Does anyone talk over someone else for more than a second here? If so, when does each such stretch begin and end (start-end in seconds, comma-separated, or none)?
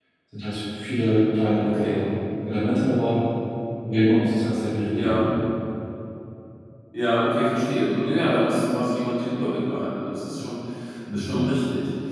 none